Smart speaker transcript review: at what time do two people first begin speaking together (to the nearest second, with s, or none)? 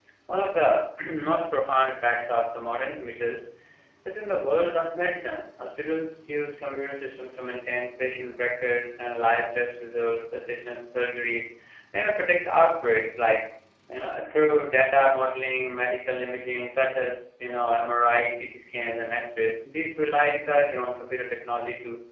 none